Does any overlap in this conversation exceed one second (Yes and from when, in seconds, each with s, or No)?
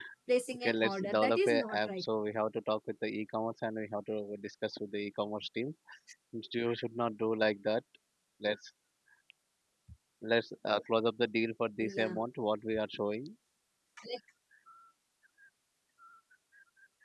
Yes, from 0.6 s